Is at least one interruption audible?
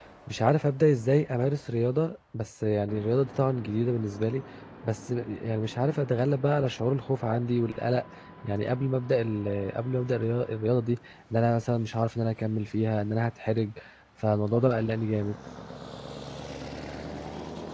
No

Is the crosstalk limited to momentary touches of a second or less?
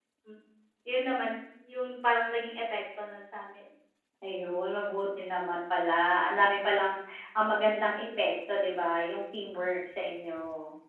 Yes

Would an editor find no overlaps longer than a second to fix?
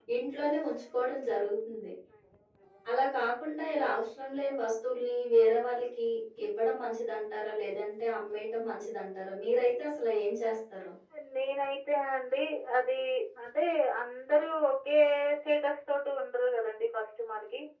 Yes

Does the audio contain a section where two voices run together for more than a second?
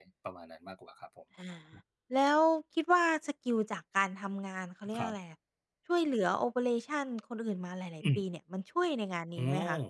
No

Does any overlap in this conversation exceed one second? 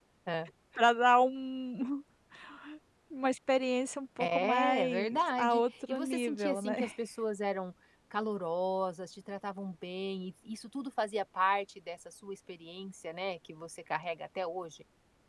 Yes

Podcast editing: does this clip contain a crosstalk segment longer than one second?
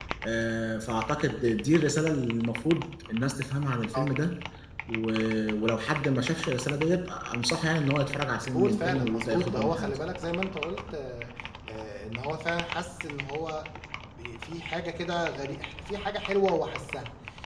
Yes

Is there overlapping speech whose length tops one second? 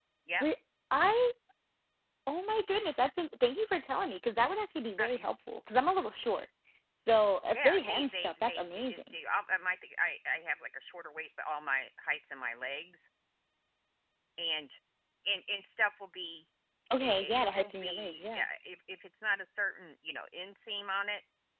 Yes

